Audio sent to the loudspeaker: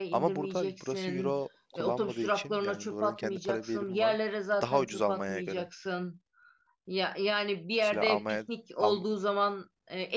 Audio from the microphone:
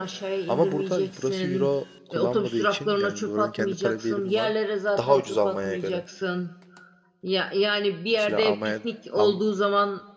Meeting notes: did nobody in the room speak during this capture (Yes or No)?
Yes